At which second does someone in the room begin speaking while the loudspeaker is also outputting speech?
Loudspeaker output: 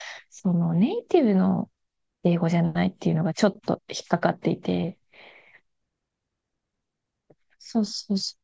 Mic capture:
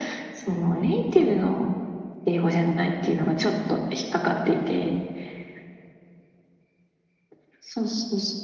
none

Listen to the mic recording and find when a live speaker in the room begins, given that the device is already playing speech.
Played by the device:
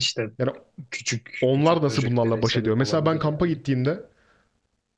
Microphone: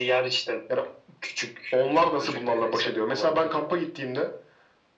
none

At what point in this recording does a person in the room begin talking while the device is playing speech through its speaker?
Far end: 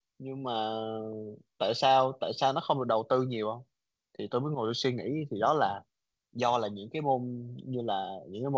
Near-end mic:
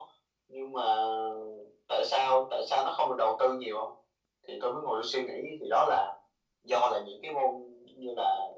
none

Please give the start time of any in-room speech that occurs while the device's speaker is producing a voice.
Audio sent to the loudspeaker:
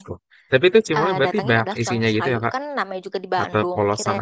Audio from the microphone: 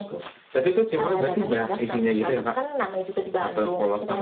none

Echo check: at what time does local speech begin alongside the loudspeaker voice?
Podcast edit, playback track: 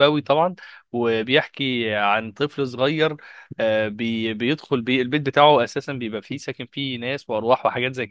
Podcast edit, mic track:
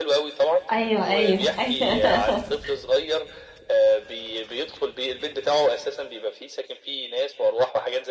0.7 s

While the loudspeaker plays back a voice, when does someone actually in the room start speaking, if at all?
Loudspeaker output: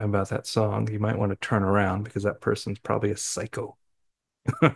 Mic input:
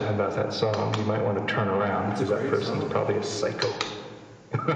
2.0 s

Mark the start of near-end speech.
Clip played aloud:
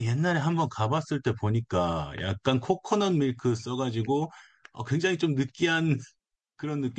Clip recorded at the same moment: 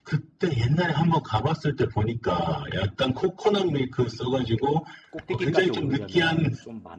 5.1 s

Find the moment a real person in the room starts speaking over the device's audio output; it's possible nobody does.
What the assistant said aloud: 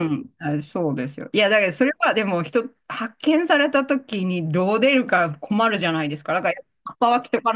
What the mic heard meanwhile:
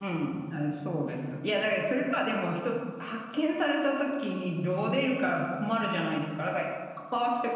none

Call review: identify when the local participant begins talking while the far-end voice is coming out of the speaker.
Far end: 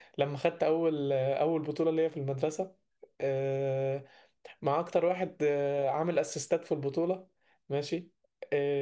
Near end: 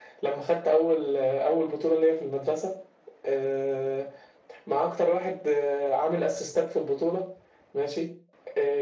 none

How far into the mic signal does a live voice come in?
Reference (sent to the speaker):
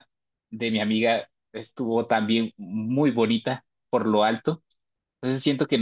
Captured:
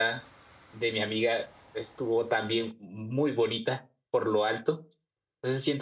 none

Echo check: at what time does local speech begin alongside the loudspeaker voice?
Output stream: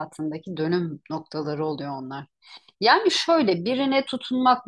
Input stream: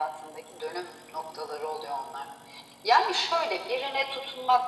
none

